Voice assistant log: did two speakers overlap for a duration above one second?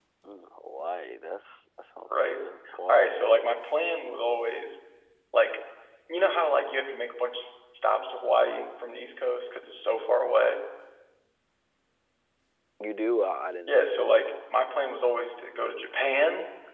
No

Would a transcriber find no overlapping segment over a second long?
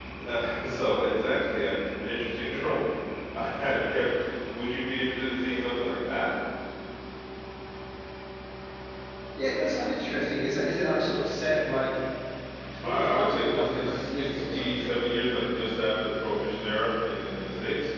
No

